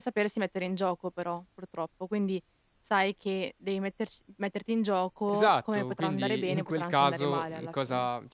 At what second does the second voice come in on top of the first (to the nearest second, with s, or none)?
5 s